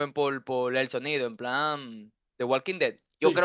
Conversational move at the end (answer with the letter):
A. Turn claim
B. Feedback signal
B